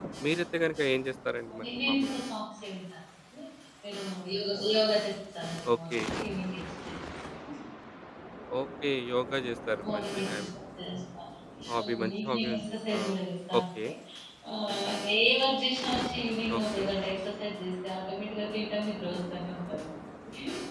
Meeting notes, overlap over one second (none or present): present